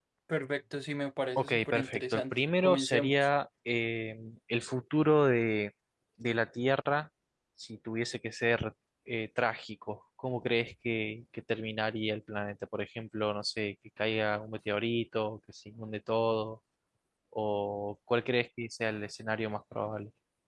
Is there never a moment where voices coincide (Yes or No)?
No